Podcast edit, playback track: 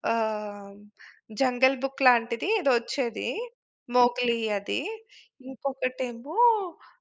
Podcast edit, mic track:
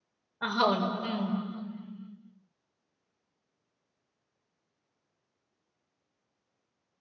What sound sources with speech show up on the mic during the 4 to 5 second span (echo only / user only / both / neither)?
neither